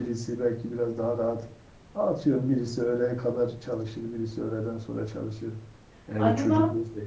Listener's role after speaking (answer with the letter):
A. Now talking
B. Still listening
B